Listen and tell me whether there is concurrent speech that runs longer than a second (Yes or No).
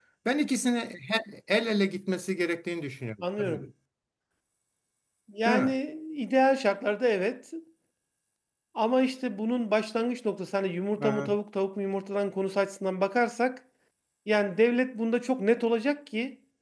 No